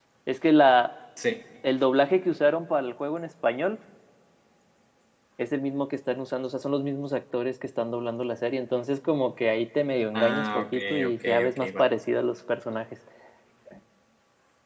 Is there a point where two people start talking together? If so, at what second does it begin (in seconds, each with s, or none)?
10.1 s